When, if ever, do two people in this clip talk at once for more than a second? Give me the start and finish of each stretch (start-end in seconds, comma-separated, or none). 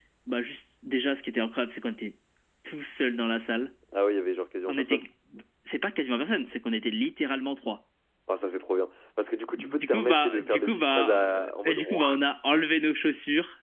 9.5-12.1